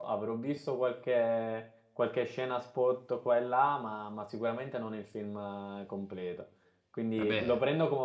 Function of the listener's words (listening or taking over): listening